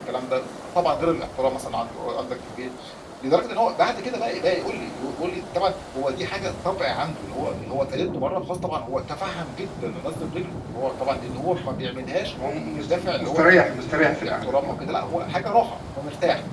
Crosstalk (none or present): present